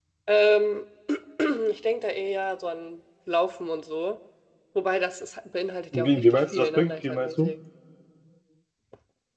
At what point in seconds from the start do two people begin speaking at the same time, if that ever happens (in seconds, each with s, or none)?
5.9 s